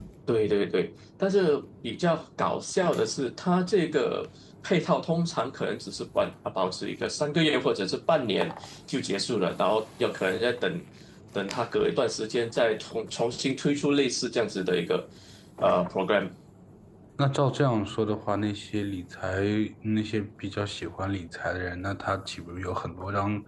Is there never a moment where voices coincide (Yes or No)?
Yes